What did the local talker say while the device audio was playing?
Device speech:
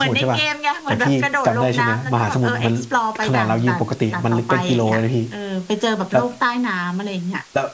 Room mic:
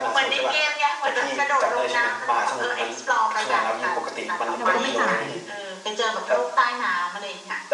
เราก็ไม่ตาย

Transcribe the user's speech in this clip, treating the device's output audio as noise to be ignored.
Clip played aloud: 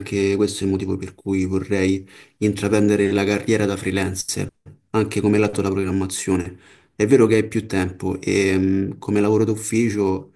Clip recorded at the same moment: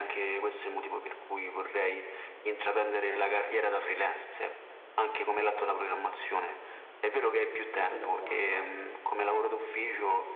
e poi dopo hanno

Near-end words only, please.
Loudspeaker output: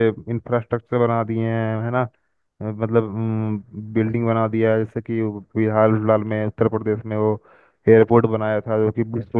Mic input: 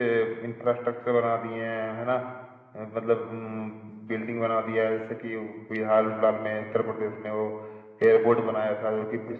none

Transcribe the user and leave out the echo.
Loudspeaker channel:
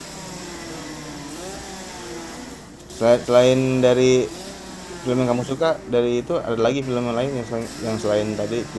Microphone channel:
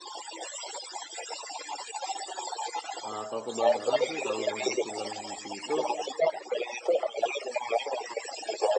Eee, kalau aku boleh saran sih kalau untuk film DC itu,

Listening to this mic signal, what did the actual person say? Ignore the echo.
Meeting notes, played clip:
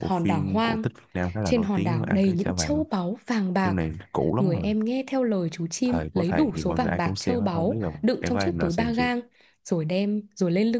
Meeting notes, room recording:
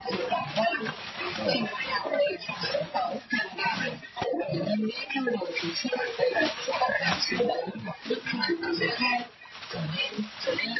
none

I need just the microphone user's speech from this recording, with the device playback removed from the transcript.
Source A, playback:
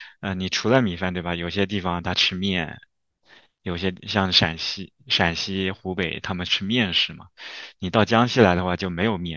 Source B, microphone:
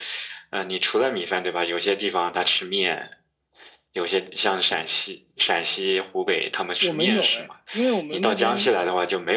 我们有哎，因为我们那边

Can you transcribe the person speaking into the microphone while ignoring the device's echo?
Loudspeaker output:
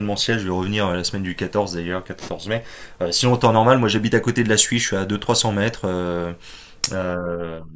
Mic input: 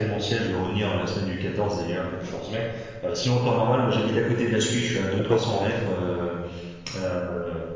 Complètement.

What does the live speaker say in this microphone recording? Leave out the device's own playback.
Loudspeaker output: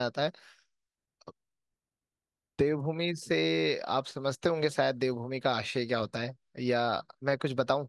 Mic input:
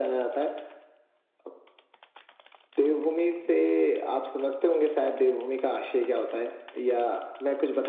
none

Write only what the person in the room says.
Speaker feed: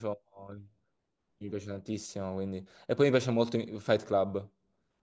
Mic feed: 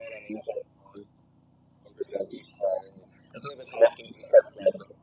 none

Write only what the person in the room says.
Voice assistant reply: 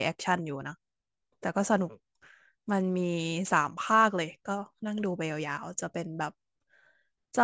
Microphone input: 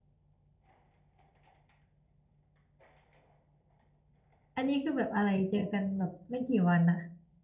อันนี้คือแบบอะไรเจอกันแบบไม่กี่วันอะ

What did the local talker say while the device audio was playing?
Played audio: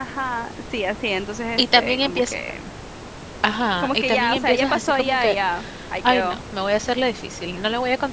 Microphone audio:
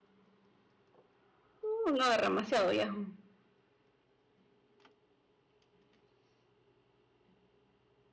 Uh, no, demasiado viejo. O

